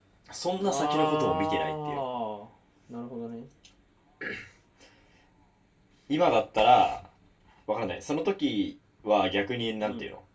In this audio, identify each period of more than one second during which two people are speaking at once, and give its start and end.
0.6-2.0

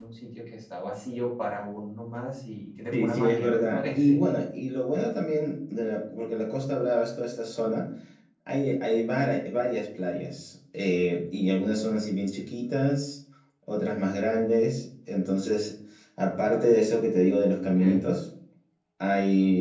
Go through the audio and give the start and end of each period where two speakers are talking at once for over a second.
2.9-4.3

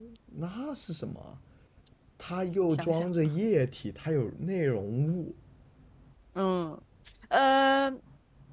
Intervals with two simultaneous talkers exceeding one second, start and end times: none

